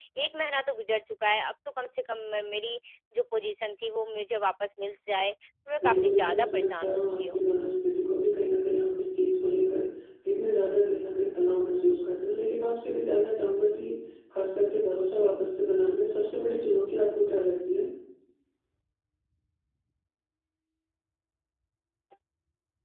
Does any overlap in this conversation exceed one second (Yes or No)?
Yes